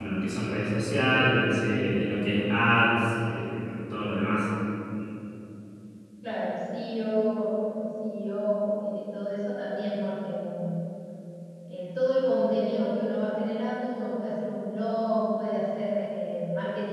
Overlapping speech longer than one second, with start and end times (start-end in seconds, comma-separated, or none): none